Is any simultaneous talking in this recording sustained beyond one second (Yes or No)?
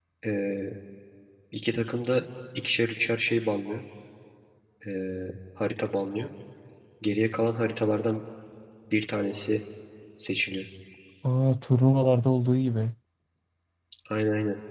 No